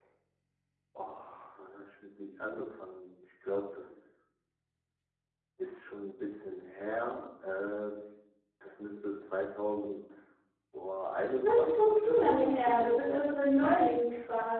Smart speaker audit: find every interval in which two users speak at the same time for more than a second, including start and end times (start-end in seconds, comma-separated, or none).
11.4-13.4